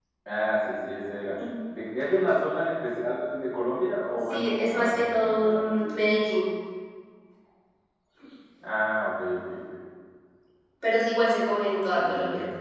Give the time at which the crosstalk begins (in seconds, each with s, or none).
4.3 s